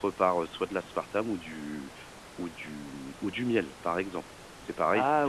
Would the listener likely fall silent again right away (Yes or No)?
Yes